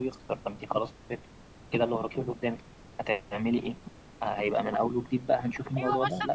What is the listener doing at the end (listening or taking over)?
taking over